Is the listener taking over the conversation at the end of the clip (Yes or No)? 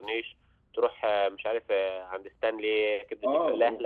Yes